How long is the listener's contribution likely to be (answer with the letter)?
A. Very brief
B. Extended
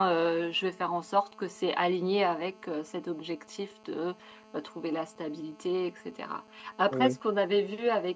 A